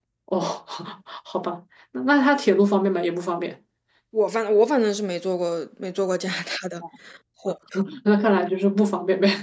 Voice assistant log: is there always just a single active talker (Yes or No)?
Yes